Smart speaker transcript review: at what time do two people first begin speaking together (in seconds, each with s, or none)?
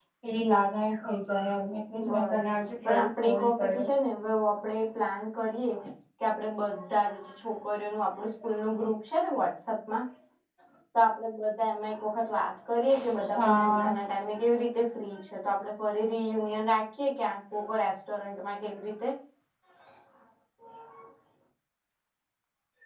2.0 s